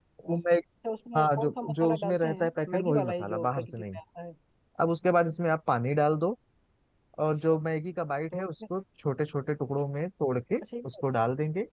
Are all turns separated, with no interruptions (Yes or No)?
No